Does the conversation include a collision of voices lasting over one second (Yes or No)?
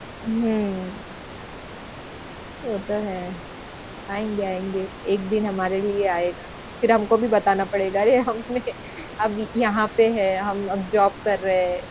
No